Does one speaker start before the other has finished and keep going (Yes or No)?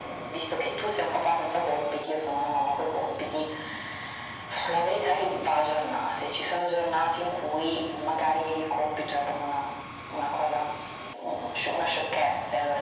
No